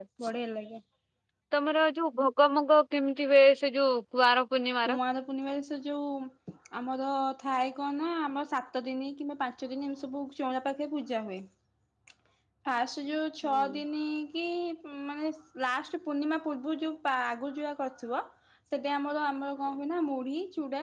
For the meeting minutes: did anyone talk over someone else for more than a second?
No

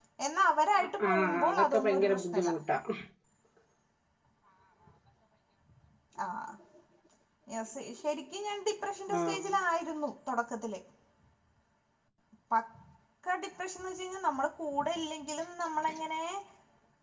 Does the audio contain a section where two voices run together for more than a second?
Yes, from 1.1 s

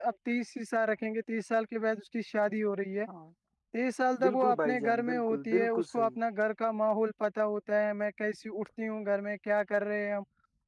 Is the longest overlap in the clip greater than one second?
Yes, from 4.2 s

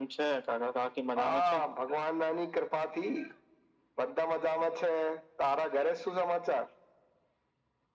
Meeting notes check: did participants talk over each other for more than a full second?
No

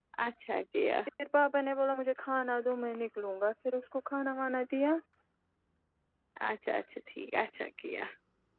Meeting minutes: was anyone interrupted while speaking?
No

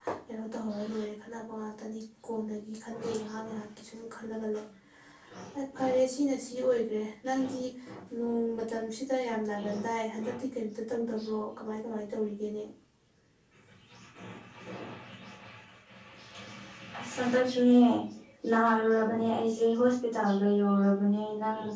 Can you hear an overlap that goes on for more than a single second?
No

